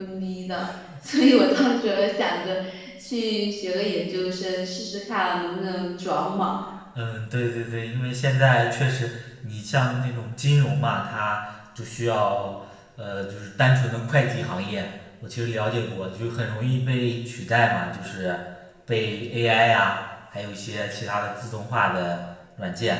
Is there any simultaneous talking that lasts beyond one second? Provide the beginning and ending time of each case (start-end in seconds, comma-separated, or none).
none